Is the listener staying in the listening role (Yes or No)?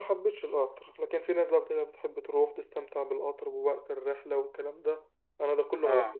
Yes